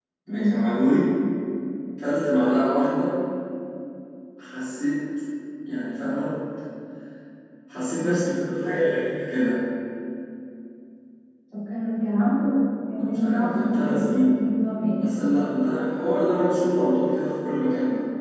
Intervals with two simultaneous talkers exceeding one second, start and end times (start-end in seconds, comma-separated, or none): 12.9-14.3